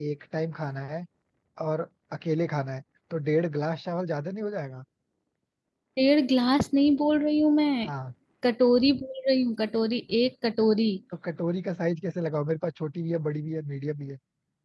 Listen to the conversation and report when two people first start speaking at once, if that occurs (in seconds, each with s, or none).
none